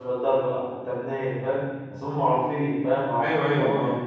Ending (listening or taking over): taking over